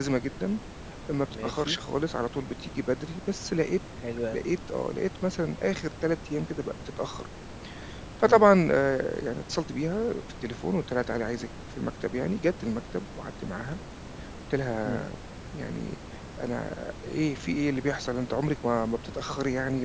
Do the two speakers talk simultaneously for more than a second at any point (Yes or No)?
No